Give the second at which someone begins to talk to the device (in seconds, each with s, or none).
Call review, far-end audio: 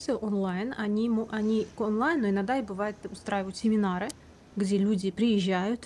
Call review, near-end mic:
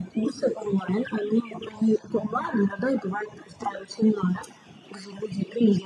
none